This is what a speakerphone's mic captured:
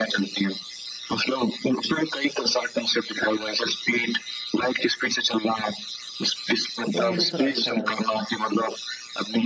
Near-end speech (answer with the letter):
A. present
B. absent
A